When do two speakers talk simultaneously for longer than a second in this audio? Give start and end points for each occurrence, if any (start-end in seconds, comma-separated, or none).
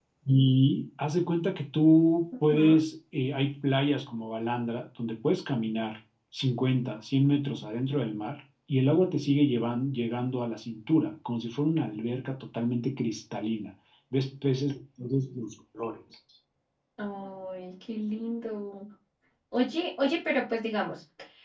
none